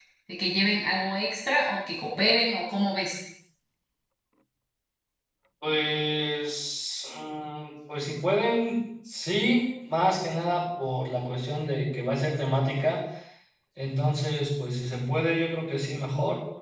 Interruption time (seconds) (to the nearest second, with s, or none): none